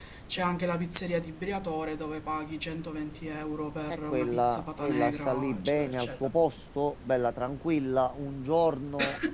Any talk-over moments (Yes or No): Yes